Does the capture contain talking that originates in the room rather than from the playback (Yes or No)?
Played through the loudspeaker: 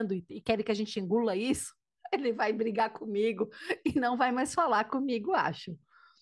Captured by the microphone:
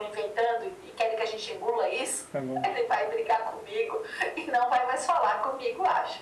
Yes